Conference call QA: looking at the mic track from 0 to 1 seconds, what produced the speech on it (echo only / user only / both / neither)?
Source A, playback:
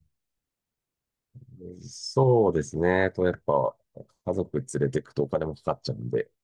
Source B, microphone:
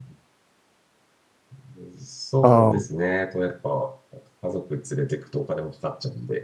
neither